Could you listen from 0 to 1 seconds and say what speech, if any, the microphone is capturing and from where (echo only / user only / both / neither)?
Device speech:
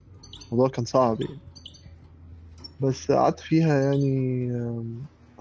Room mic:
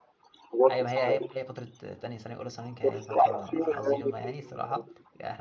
both